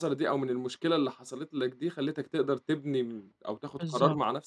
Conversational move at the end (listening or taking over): listening